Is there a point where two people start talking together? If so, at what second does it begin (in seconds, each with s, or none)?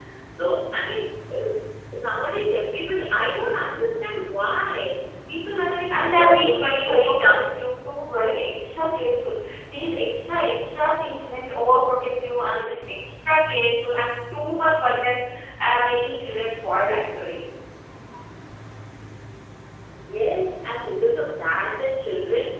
5.9 s